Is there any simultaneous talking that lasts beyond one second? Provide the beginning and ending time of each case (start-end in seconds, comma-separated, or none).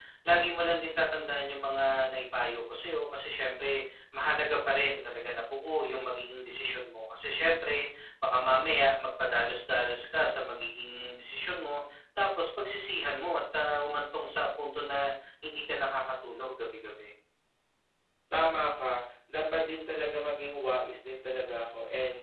none